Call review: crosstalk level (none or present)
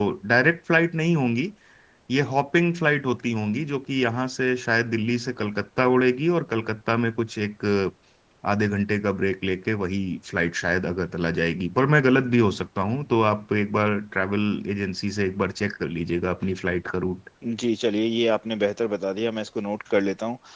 none